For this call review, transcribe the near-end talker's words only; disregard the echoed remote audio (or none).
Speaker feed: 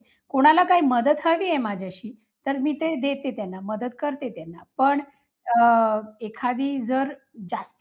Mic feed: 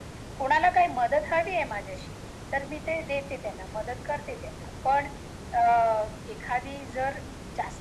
none